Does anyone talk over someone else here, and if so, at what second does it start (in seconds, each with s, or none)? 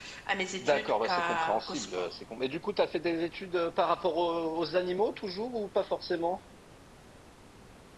0.6 s